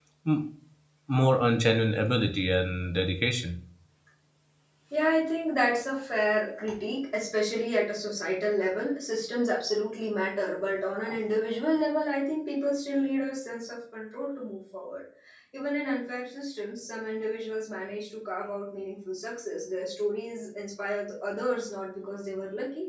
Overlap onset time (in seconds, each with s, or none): none